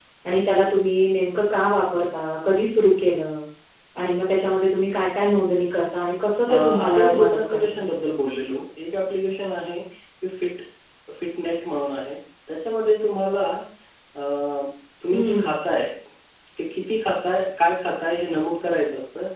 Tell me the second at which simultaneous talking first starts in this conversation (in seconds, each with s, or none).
6.5 s